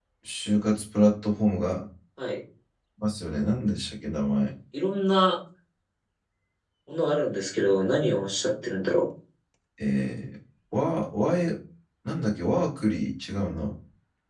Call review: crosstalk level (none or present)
none